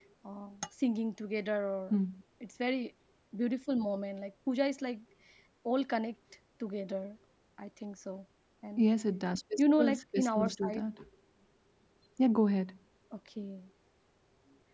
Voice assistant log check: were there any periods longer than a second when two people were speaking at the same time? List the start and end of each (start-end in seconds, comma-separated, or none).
9.6-10.9